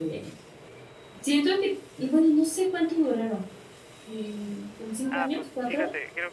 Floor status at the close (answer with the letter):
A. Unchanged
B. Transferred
B